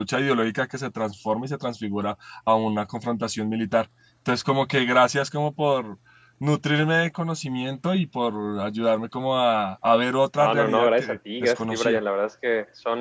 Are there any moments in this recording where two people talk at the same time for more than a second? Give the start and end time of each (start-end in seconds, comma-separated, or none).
10.4-12.0